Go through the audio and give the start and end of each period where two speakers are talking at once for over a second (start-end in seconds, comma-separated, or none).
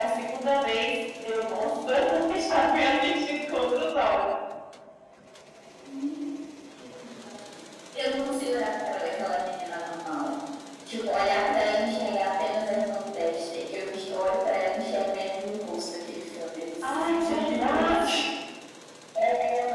16.8-18.1